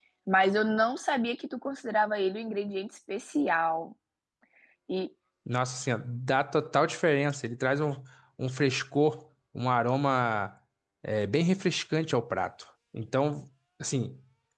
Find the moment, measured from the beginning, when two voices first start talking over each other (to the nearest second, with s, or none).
none